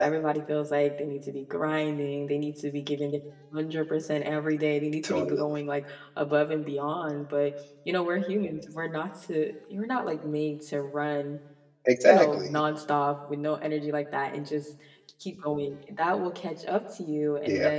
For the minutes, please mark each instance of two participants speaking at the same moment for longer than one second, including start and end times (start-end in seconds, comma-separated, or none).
none